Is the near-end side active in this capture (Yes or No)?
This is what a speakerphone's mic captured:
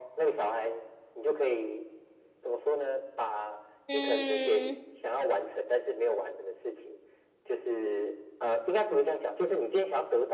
Yes